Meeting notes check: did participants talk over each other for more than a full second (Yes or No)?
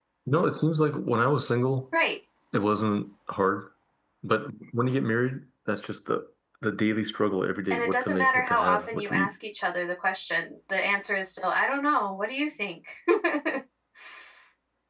Yes